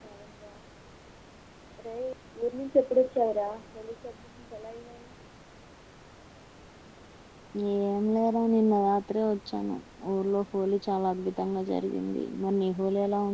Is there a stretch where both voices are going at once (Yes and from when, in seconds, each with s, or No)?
No